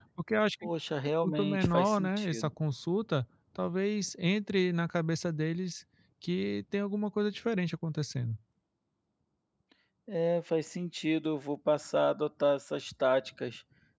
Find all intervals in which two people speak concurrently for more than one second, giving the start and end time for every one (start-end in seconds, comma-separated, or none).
1.2-2.5